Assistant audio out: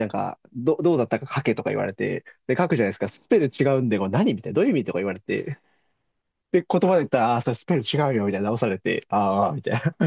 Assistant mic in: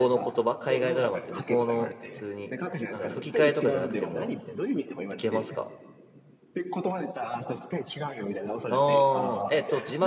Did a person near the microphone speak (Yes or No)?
Yes